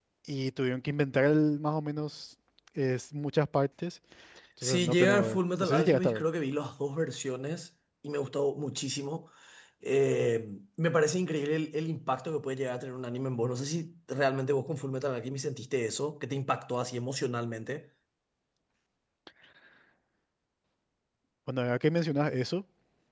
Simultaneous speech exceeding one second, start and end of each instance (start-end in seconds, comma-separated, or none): 4.6-6.2